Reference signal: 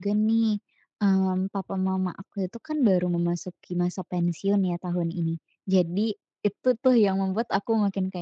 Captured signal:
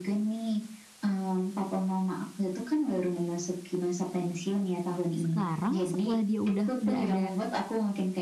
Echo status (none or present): present